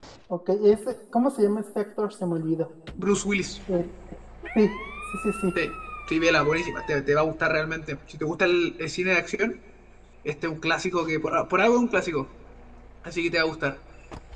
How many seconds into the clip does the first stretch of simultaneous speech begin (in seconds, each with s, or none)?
none